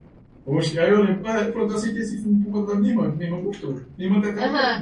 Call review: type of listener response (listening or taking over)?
taking over